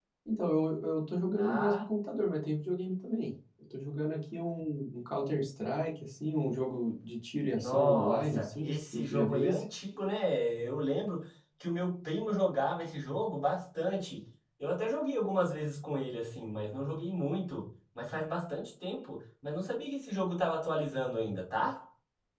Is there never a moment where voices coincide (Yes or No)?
No